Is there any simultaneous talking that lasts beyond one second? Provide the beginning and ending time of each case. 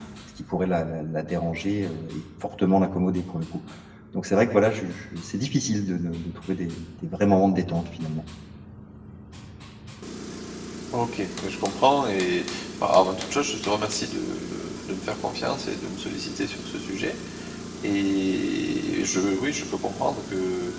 none

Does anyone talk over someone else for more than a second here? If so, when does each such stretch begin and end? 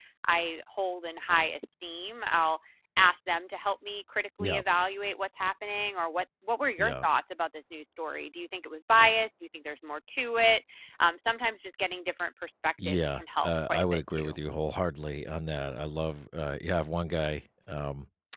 12.8-14.3

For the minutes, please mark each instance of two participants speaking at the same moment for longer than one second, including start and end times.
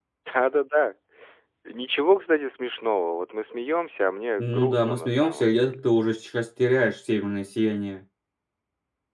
4.4-5.8

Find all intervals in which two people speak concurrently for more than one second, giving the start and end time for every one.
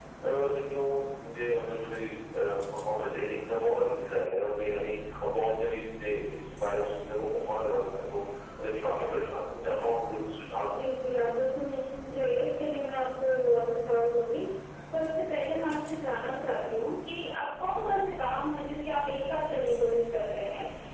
none

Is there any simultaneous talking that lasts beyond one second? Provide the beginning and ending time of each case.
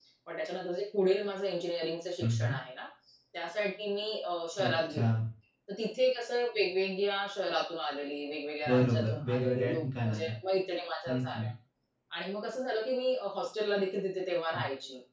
8.7-10.3

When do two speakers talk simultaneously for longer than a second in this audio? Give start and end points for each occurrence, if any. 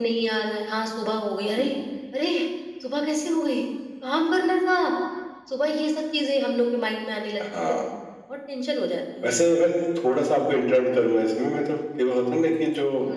none

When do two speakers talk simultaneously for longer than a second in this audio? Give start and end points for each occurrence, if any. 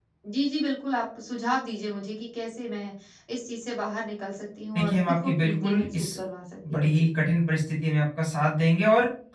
4.8-6.1

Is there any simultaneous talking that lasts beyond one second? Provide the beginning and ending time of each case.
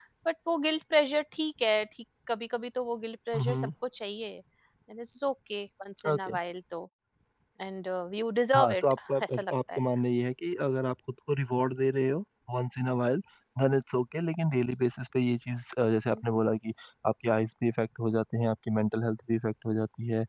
8.6-9.8

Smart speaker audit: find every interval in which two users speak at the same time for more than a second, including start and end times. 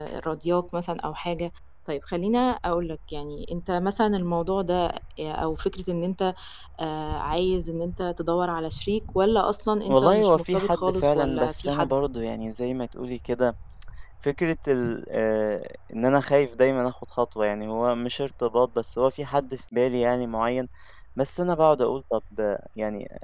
9.9-12.0

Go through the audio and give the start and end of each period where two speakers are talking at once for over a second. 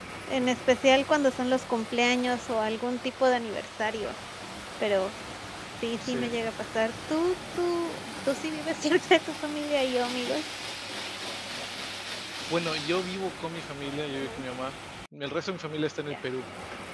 none

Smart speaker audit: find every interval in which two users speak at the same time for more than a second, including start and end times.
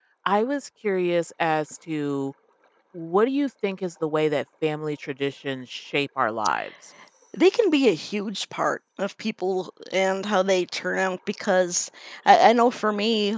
none

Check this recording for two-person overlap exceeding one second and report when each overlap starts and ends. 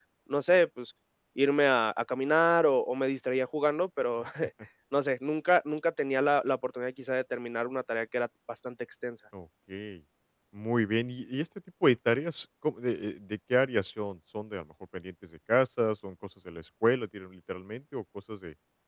none

